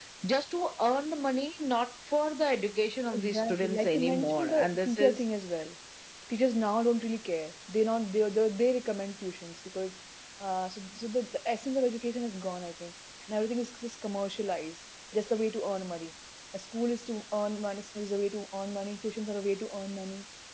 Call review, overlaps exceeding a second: present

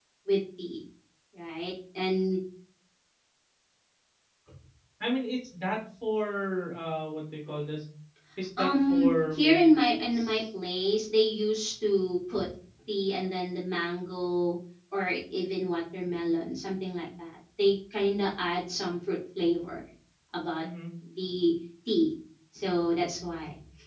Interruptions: present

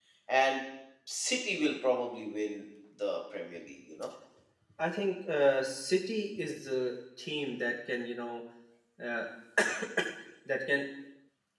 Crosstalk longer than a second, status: none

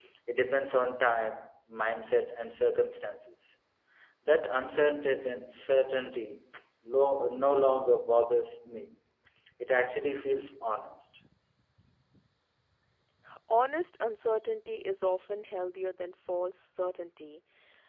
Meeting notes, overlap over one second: none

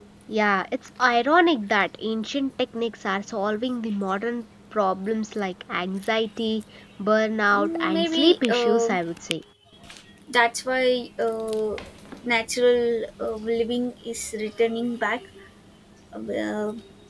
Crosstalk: present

